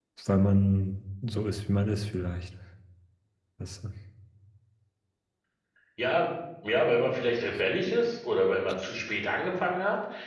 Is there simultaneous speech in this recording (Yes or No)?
No